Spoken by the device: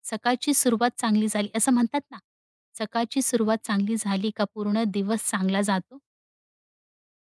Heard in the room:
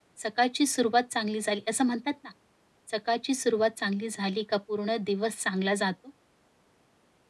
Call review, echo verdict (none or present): present